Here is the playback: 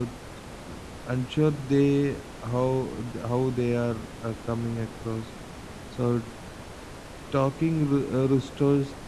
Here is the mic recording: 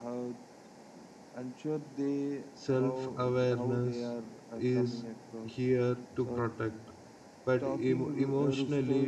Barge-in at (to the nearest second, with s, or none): 3 s